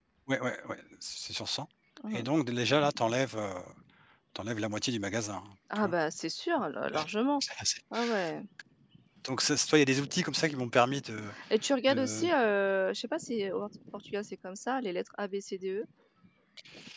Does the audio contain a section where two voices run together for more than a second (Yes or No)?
No